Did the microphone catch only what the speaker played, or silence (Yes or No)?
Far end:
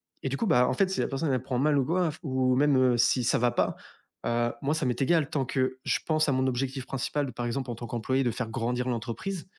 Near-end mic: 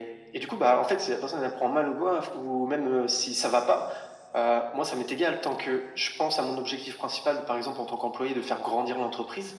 Yes